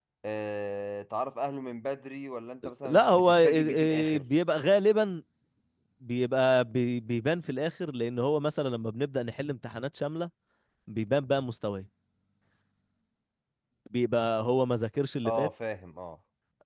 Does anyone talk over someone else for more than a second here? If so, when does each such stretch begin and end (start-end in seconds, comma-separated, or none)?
2.8-4.2